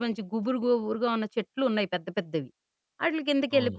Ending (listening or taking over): listening